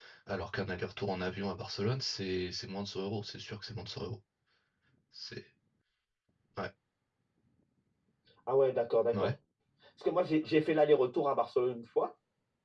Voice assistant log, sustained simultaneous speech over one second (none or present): none